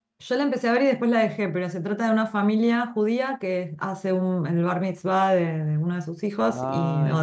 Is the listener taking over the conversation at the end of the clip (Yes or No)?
No